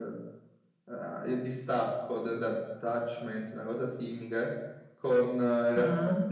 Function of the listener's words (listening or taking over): listening